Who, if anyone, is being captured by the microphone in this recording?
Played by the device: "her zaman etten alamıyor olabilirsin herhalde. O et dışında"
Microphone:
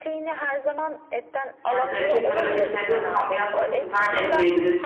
both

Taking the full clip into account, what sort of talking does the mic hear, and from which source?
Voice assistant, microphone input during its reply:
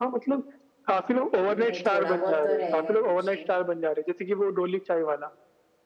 both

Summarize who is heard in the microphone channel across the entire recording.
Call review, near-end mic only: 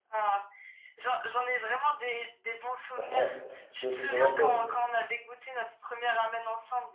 both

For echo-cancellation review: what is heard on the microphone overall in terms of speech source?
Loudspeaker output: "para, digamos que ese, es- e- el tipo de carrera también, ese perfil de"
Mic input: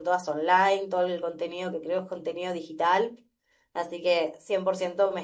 user only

